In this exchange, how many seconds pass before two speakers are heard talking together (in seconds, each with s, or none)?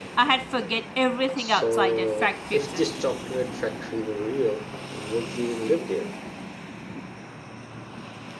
1.4 s